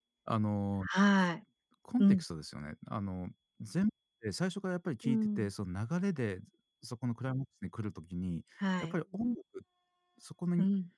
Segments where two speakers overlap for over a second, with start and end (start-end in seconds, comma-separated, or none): none